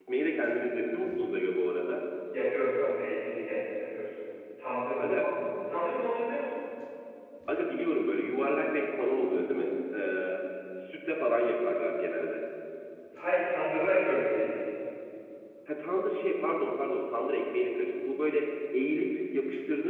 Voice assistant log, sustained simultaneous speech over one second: none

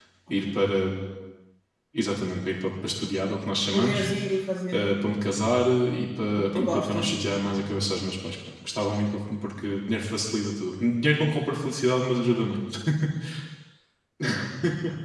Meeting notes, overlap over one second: present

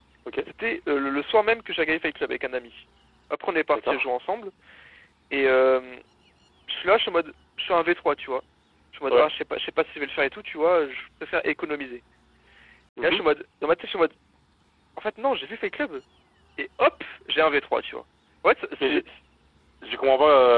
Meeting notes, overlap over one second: none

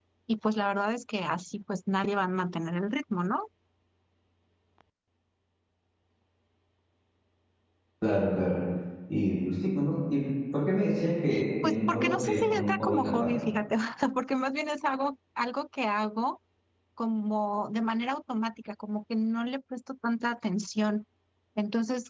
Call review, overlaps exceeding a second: present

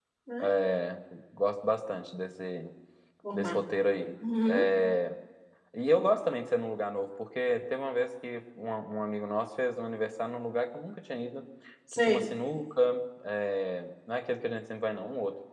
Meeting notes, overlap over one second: none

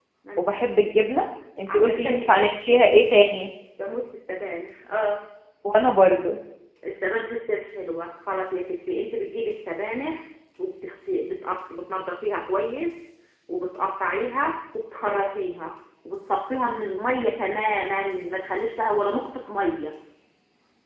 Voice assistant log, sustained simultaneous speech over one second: present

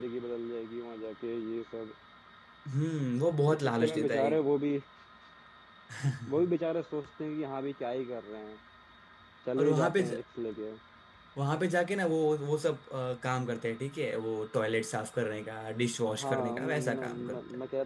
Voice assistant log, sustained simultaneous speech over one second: present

